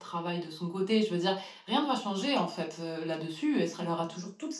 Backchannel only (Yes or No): Yes